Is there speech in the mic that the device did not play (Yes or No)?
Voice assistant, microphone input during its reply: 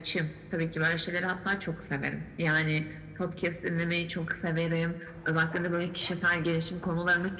No